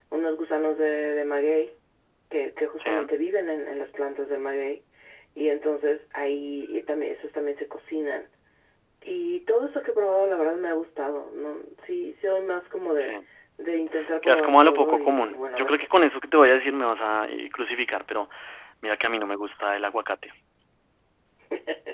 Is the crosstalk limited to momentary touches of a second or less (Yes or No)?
No